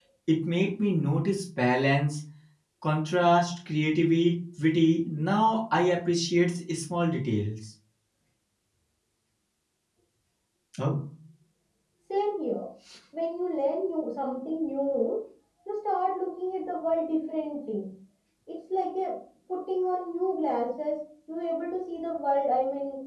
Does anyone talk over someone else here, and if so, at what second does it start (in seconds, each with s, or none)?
none